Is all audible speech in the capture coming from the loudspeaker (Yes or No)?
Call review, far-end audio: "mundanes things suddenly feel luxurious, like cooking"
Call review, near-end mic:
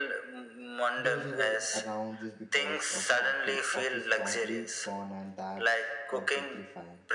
No